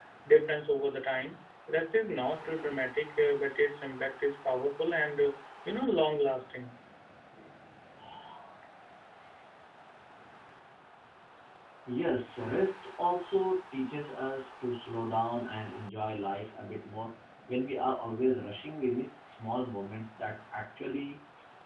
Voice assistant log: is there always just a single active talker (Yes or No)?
Yes